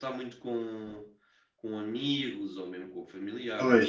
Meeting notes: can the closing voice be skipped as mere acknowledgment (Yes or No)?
No